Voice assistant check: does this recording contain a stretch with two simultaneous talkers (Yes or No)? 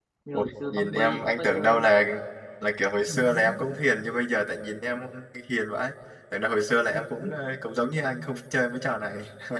Yes